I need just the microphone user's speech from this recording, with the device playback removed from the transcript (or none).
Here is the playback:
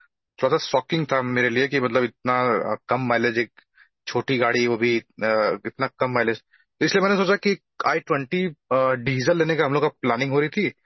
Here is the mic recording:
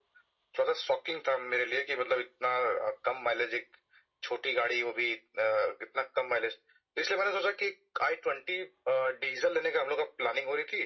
none